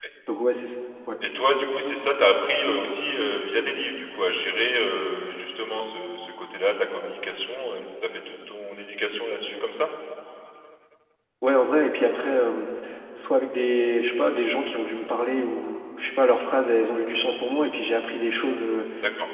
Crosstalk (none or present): none